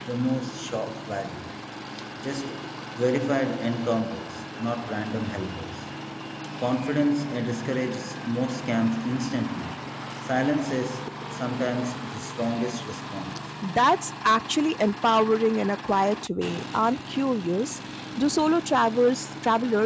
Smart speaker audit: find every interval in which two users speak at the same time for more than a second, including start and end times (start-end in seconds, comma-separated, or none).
none